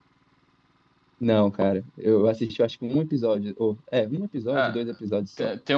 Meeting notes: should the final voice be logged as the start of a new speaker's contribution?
Yes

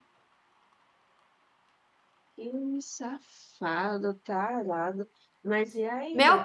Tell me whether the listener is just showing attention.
No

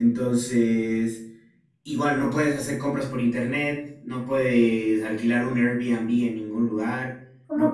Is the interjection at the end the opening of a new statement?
No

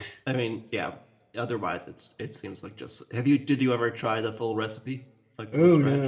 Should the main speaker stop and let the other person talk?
Yes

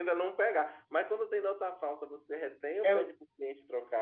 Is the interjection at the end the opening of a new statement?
No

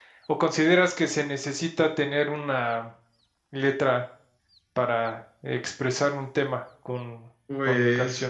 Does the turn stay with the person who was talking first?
No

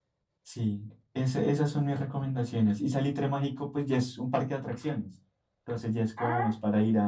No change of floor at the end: Yes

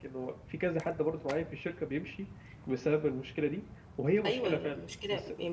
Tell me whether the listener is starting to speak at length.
Yes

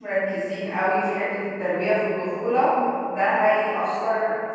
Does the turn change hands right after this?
No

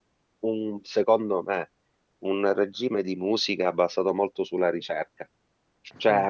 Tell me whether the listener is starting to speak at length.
No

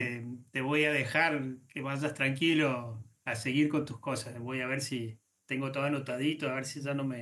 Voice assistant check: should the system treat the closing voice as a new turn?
No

